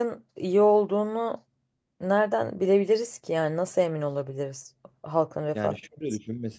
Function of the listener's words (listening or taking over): taking over